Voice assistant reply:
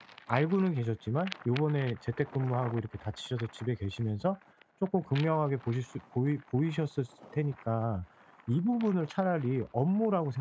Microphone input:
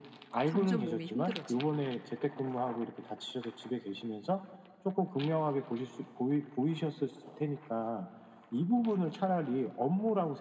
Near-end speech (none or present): present